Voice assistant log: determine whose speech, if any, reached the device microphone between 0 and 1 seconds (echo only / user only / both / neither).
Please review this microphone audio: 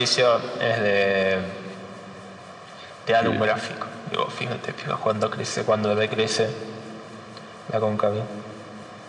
echo only